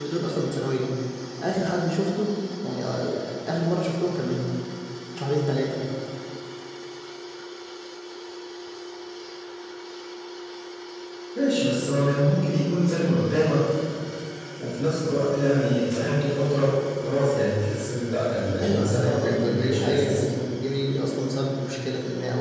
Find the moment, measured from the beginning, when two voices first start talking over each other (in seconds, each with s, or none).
18.6 s